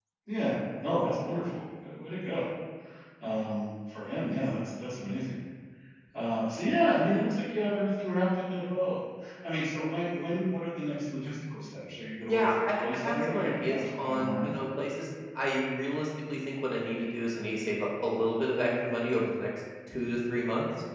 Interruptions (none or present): present